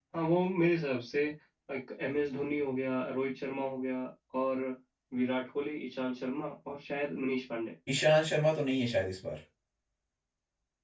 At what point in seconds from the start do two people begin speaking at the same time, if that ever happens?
none

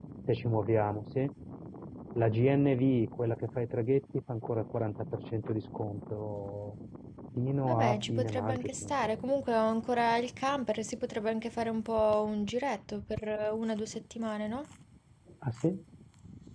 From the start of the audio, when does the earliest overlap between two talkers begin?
7.7 s

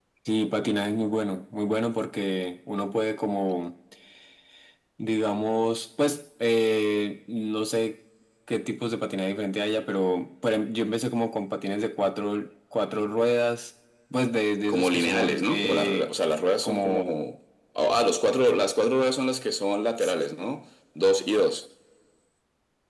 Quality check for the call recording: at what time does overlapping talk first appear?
14.7 s

